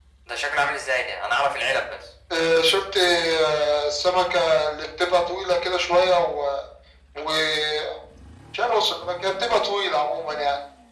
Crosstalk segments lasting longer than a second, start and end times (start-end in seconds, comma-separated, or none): none